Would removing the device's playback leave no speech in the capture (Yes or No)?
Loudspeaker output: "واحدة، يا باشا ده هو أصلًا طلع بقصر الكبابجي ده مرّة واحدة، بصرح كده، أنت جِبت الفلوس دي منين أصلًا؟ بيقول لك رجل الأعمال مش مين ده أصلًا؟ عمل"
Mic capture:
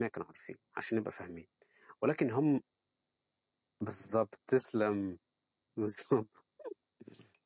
No